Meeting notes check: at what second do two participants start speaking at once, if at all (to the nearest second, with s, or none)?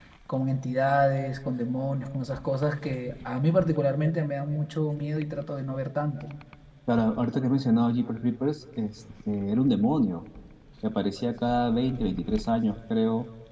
none